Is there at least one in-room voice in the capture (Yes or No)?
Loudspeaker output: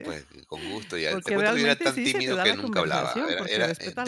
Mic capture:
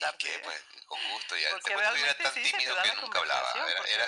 No